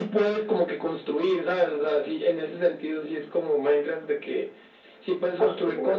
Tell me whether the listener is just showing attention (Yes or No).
Yes